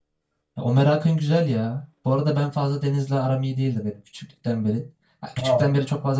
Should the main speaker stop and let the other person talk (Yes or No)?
No